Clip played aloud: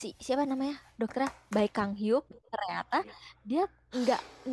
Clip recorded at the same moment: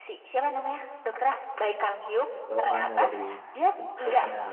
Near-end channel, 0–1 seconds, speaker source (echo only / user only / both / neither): echo only